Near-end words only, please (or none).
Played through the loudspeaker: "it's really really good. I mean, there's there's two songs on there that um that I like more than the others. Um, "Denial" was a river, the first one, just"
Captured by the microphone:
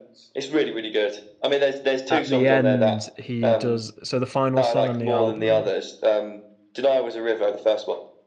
at the end, he does. So the final song on the album